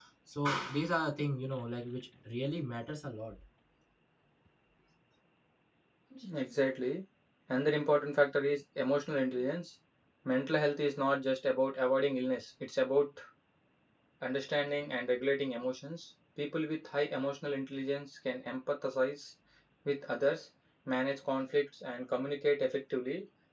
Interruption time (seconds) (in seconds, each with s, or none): none